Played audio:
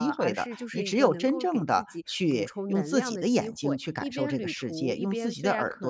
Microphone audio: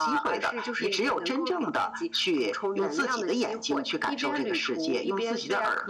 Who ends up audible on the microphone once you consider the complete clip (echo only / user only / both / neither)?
echo only